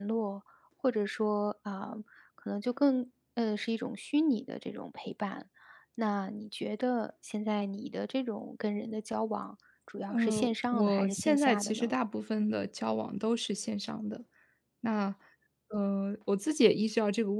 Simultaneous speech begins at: 10.1 s

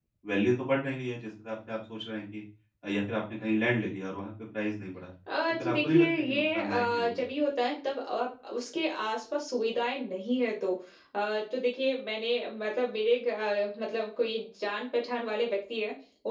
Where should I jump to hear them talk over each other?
5.3 s

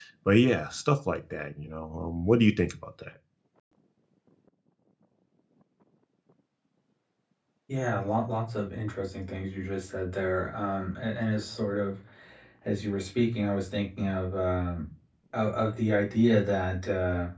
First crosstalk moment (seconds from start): none

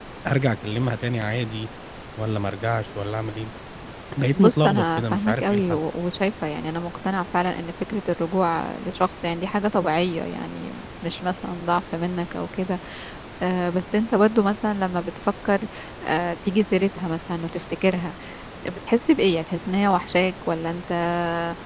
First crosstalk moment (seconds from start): 4.3 s

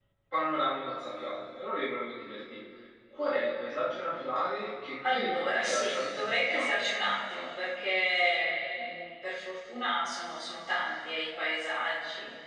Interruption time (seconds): 5.0 s

